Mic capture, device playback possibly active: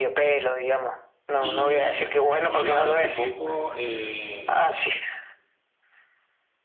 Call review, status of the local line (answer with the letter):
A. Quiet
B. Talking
B